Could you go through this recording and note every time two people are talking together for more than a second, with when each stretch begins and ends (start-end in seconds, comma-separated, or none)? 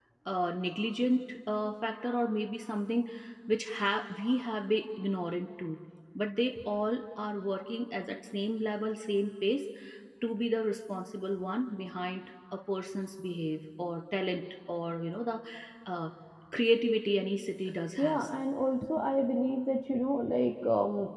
none